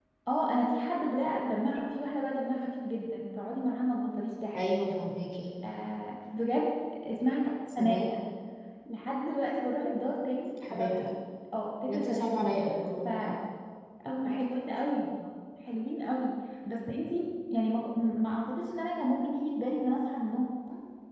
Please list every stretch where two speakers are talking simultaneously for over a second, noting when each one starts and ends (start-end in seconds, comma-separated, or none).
none